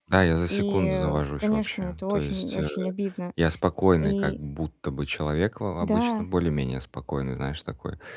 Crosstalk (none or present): present